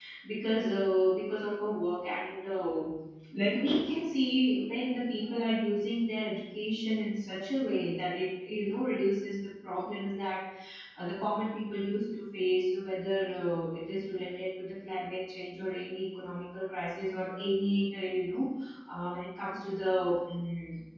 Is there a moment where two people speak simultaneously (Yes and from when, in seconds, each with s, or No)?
No